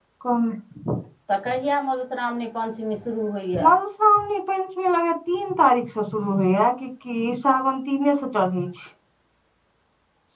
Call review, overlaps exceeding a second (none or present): none